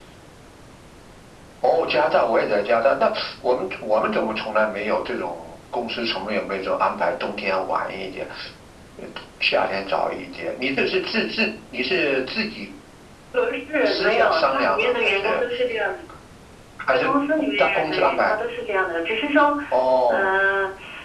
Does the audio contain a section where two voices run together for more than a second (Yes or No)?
Yes